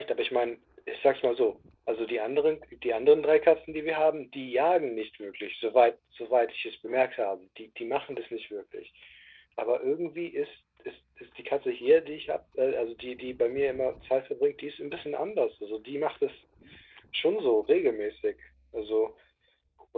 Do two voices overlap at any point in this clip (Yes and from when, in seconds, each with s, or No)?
No